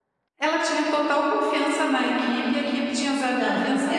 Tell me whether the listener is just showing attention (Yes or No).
No